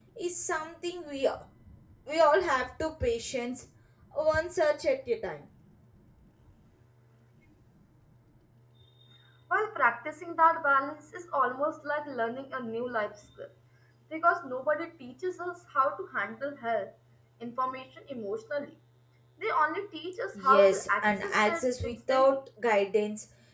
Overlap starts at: 20.4 s

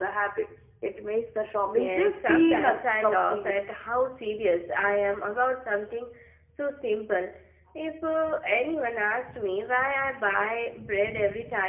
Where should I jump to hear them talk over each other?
1.6 s

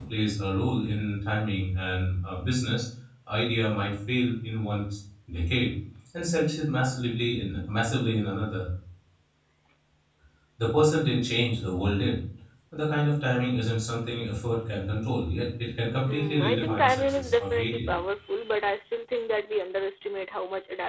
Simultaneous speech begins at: 16.1 s

